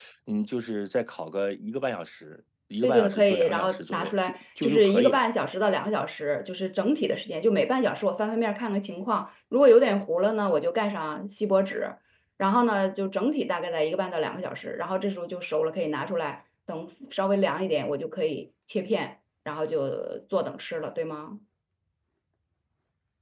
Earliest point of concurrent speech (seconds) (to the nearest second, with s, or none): 3 s